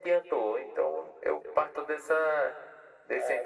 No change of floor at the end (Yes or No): Yes